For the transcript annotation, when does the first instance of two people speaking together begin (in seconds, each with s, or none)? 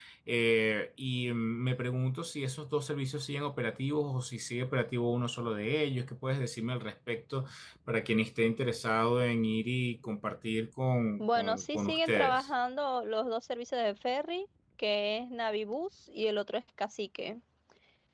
11.2 s